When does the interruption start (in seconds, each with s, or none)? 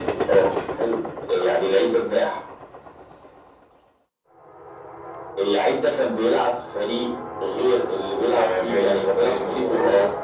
8.3 s